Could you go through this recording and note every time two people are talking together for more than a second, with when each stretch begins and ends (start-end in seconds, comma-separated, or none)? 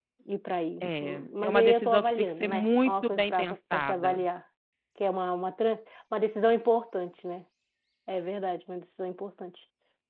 0.8-4.2